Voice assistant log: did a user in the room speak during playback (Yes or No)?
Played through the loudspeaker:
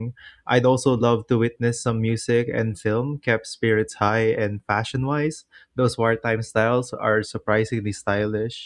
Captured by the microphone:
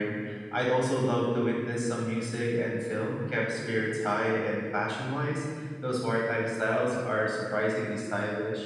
No